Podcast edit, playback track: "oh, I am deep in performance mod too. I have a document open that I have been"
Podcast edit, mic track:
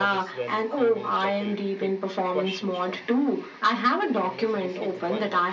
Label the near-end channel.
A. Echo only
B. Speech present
B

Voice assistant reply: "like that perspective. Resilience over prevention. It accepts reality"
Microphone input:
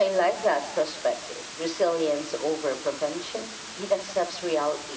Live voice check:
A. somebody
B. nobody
B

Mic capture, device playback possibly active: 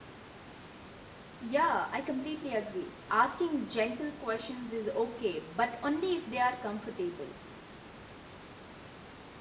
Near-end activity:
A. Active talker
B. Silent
A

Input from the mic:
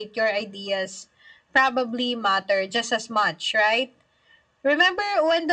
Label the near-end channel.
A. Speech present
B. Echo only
B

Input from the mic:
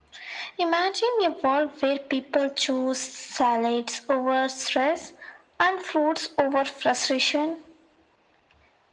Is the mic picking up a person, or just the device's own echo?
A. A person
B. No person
B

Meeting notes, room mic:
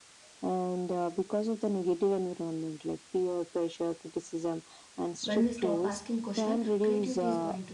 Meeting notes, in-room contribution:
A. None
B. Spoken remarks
B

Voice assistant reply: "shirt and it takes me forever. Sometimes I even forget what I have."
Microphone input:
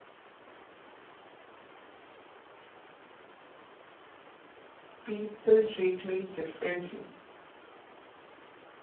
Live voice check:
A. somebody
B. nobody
A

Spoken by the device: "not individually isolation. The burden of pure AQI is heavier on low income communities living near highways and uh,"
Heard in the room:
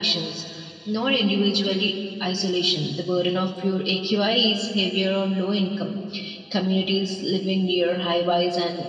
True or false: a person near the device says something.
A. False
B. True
A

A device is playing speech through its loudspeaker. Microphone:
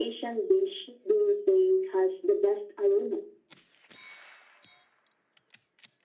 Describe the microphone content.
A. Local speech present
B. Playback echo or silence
B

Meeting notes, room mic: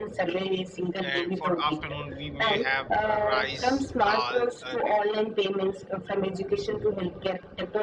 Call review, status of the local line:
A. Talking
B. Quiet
A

